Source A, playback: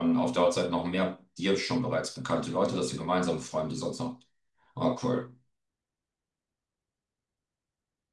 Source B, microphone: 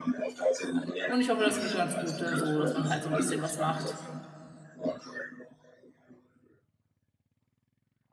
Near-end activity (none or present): present